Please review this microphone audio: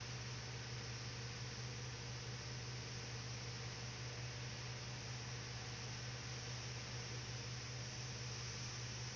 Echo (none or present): none